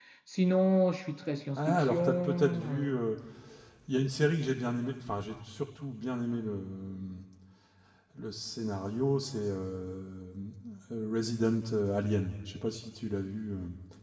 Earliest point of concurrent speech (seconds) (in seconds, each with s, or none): 1.6 s